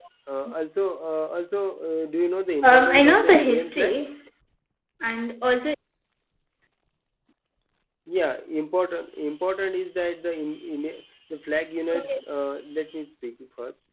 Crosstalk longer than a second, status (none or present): present